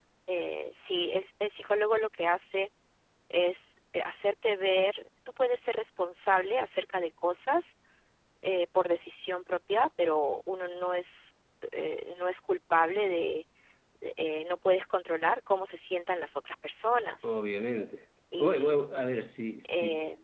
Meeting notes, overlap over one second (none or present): none